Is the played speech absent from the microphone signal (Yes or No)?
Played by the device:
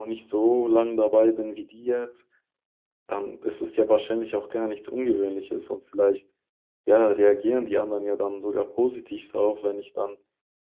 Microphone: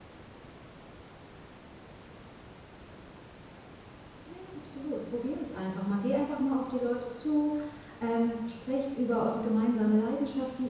Yes